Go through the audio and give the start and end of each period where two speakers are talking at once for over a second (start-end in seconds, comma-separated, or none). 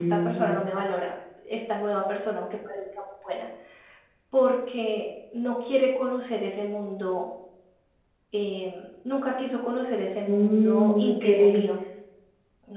10.2-11.6